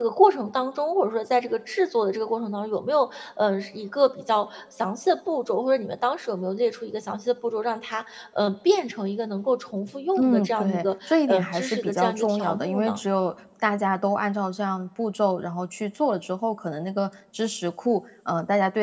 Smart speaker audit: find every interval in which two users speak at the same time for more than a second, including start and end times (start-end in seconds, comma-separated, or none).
10.2-13.0